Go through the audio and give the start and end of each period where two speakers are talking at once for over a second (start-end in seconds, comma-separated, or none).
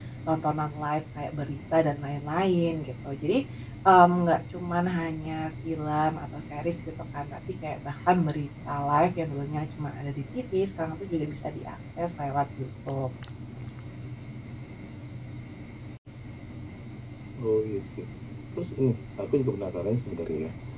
none